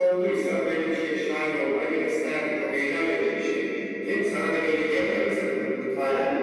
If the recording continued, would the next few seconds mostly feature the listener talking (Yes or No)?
Yes